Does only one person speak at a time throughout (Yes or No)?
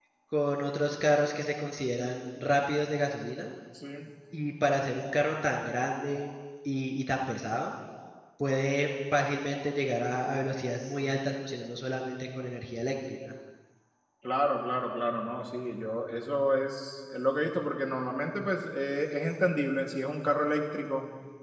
Yes